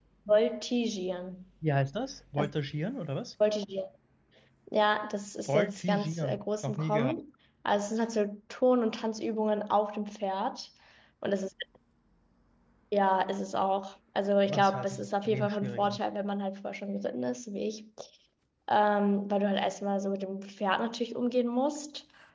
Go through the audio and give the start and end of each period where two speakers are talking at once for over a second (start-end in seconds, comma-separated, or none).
5.5-7.2, 14.5-16.0